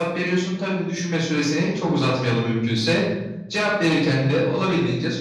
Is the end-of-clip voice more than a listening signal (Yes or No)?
No